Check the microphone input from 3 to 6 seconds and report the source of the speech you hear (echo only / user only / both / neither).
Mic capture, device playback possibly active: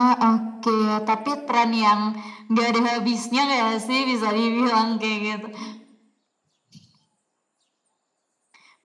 echo only